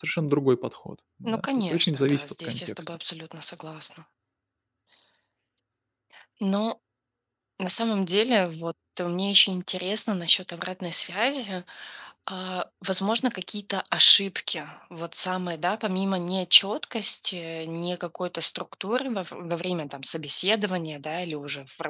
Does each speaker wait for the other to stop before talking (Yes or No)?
No